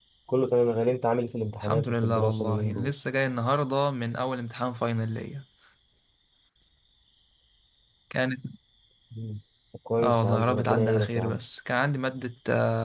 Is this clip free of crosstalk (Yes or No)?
No